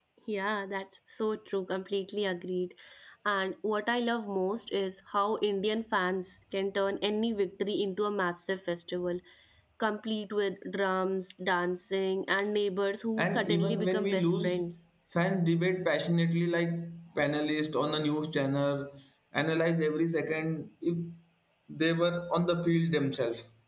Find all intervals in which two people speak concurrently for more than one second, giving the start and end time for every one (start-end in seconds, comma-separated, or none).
13.2-14.6